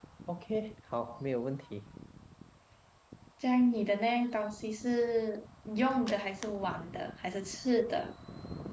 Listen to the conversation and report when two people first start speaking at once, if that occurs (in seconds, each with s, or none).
none